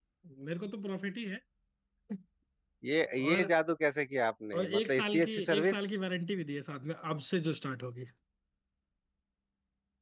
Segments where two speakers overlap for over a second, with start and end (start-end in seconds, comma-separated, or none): 4.6-5.9